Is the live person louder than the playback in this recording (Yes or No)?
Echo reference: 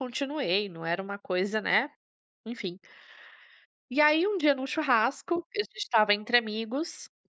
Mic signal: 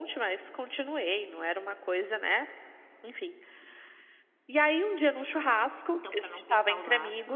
No